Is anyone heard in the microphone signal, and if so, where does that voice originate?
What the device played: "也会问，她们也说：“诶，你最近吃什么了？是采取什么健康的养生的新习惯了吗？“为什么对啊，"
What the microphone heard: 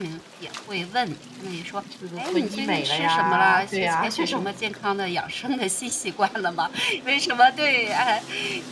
both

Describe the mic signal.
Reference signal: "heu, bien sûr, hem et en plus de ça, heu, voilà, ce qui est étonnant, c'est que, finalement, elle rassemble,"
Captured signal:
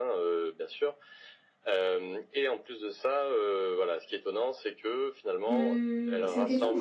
both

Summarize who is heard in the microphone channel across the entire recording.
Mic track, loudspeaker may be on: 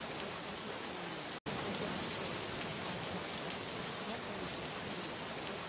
neither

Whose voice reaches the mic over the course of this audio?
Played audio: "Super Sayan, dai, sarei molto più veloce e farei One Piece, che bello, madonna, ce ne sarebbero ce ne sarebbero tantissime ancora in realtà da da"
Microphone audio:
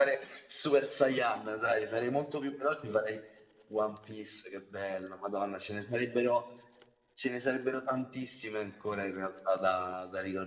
echo only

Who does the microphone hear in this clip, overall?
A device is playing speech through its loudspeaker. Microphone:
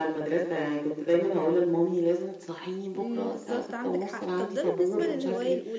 both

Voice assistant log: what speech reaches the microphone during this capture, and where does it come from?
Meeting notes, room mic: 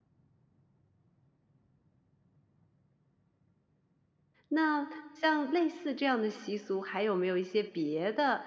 user only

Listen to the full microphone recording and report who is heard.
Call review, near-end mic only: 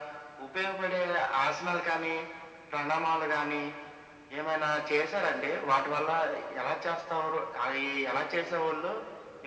echo only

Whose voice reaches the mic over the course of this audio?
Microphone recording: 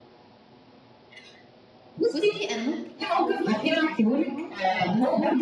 both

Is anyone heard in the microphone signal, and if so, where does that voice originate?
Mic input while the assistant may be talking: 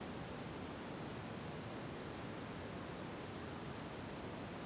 neither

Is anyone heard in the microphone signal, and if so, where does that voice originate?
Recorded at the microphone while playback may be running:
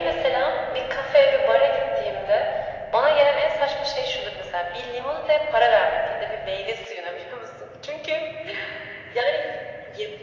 echo only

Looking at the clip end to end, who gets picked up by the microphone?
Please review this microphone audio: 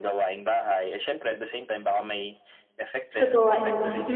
both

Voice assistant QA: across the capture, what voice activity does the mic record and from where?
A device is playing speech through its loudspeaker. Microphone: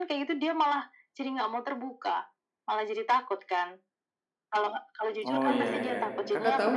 both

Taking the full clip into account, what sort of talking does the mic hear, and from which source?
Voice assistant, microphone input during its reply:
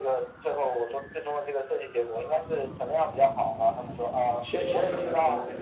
both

